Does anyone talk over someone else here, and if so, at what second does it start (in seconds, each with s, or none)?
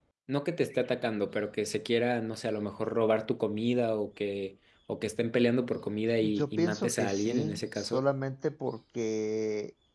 6.2 s